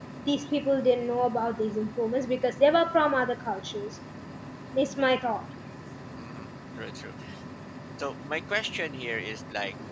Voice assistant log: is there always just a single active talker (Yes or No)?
Yes